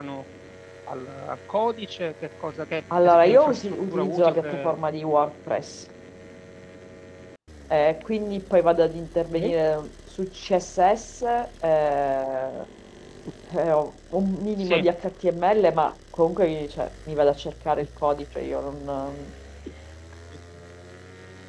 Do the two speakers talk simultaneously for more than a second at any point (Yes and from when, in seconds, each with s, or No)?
Yes, from 2.9 s